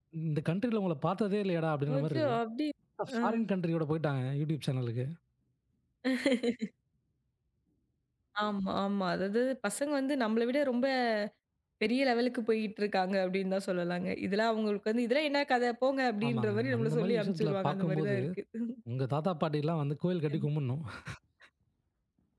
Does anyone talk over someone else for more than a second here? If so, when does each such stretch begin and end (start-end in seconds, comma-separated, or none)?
16.2-18.1